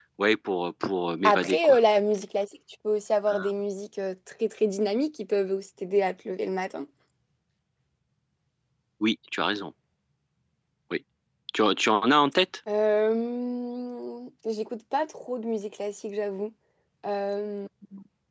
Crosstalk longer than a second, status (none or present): none